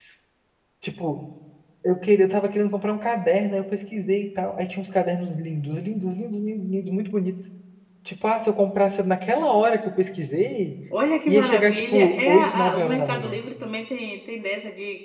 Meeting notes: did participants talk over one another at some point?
Yes, from 11.3 s

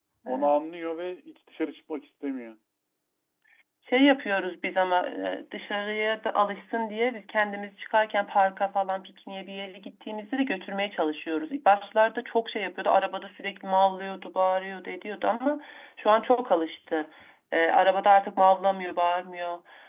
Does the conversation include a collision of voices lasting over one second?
No

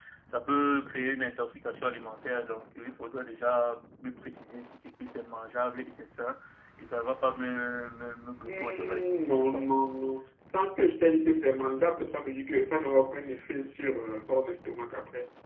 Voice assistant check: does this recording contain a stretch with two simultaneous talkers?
Yes, from 8.5 s

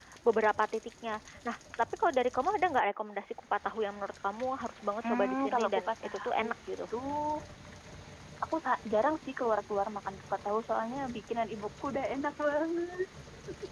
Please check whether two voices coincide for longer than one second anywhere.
Yes, from 5.0 s

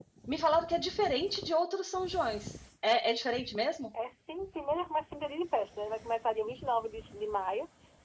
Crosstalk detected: No

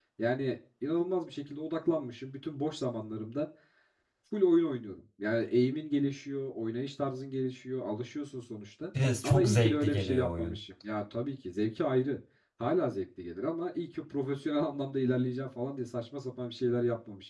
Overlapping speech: Yes, from 9.2 s

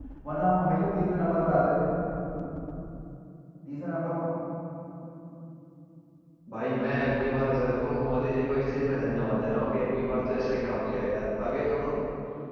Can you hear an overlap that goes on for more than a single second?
No

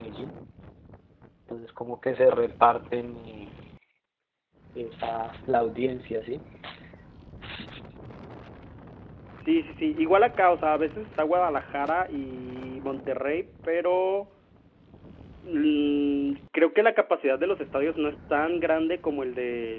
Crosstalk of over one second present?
No

